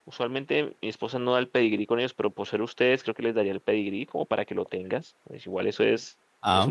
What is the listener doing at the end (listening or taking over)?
listening